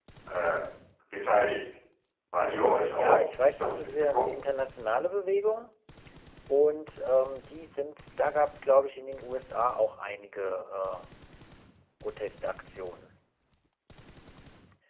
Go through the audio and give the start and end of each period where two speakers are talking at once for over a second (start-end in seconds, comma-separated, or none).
2.5-4.3